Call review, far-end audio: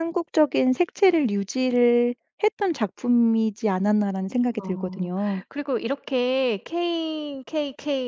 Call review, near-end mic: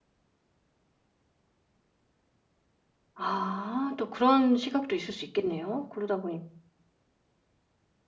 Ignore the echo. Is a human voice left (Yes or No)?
Yes